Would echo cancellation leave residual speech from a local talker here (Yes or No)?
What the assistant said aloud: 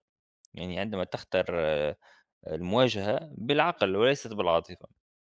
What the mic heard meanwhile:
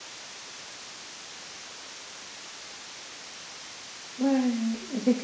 Yes